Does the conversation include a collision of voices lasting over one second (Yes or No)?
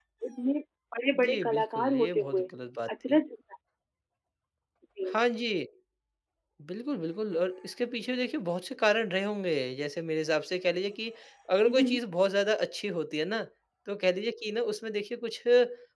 Yes